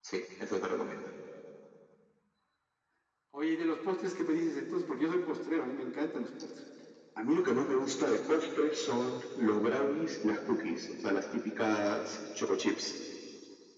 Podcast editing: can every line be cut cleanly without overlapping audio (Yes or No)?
Yes